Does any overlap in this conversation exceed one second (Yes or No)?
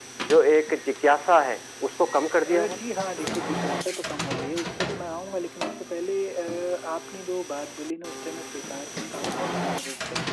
No